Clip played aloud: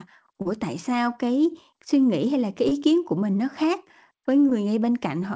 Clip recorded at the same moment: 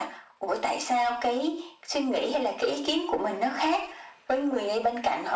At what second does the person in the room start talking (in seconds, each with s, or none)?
none